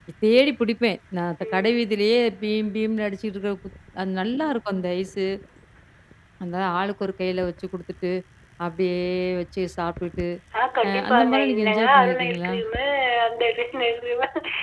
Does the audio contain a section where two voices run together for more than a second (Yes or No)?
Yes